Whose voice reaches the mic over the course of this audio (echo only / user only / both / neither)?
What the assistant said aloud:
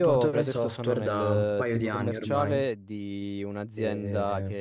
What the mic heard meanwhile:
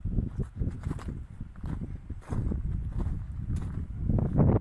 neither